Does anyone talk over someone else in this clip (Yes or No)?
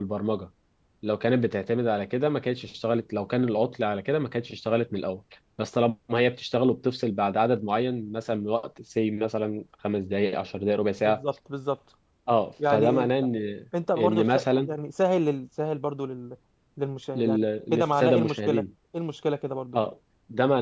Yes